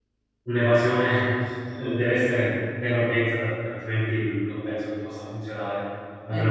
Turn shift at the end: No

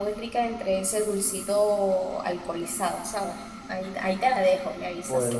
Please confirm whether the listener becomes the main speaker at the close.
Yes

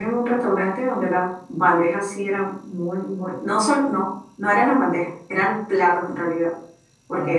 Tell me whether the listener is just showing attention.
Yes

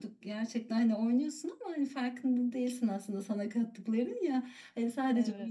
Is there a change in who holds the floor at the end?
No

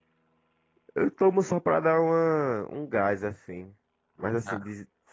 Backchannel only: Yes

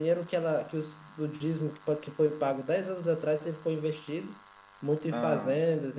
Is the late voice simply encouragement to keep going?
Yes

